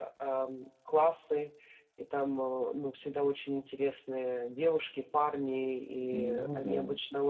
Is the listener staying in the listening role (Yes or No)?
Yes